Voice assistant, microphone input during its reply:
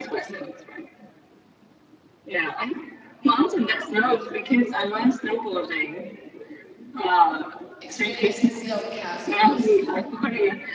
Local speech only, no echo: experience and see all the castles.

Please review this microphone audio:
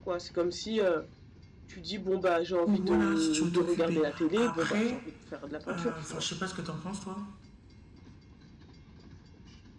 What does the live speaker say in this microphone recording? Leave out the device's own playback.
ou voilà, si tu veux t'occuper. Après, euh, enfin, je sais pas ce que t'en penses, toi.

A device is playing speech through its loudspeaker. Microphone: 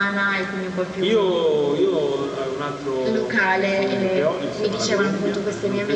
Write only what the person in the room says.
none

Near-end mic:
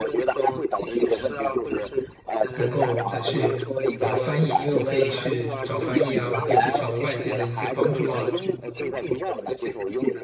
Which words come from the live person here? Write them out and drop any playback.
能够来去把它翻译，因为我可以去找翻译啊，我可以去找外界的一些帮助啊，

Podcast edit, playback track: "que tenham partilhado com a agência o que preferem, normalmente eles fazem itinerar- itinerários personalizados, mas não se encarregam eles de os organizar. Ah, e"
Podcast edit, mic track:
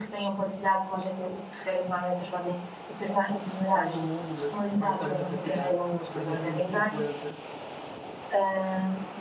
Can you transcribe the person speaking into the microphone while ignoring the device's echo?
quase o mundo, mas maioritariamente a cidade, para 2050,

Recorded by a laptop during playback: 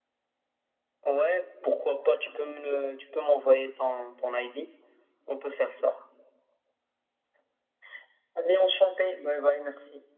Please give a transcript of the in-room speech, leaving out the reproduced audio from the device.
none

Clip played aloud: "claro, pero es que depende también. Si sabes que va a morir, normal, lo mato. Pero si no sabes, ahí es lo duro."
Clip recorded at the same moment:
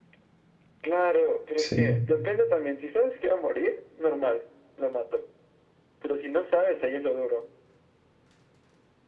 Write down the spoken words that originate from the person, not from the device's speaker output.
sí.

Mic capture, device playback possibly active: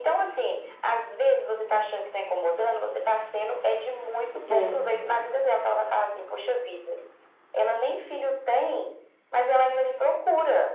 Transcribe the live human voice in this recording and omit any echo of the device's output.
É.

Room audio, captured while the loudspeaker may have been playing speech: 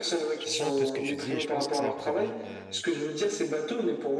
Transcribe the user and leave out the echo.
je rejoins un peu ce que tu dis et je pense que c'est un problème euh,

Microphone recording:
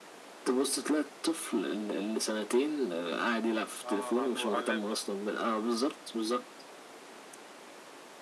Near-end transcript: اه على المو... على اللاب

